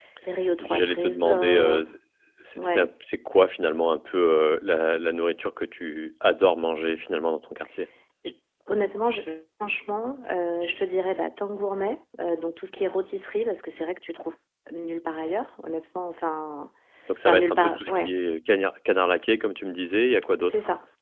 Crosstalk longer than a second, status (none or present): present